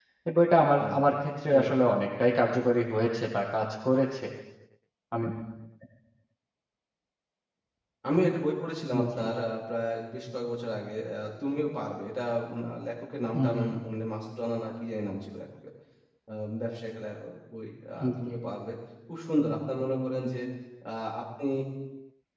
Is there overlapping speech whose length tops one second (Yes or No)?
No